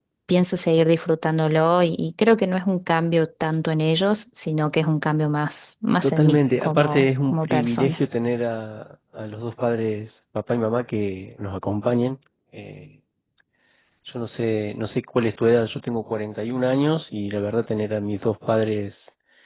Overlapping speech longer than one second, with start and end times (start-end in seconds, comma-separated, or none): 6.0-8.0